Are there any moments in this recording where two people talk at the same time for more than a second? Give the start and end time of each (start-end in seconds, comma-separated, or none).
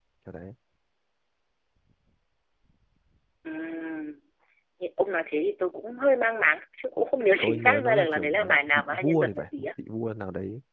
7.4-9.7